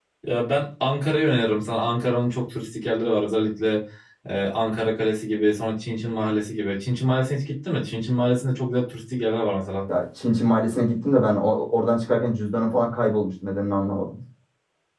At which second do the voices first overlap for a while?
none

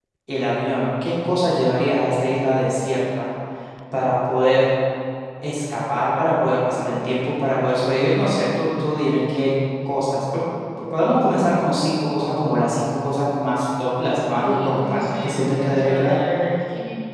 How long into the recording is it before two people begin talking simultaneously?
14.4 s

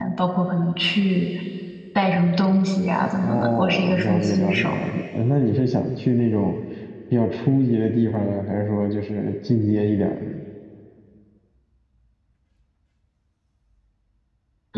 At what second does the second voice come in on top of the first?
3.2 s

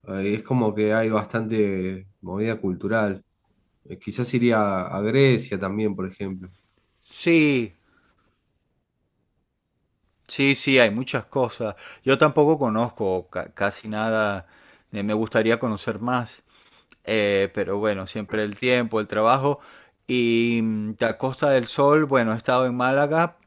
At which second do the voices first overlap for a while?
none

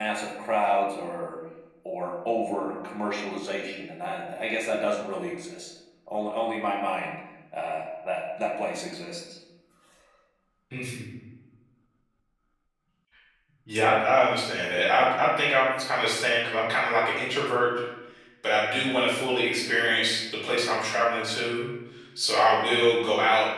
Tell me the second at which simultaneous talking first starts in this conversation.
none

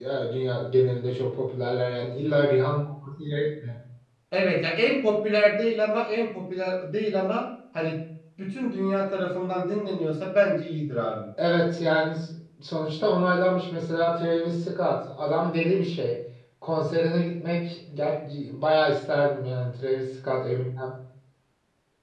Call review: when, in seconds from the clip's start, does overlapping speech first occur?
none

